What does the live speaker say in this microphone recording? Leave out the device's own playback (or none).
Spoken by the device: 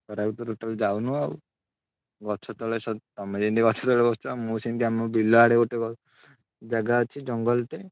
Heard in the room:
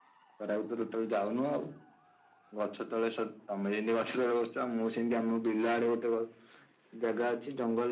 none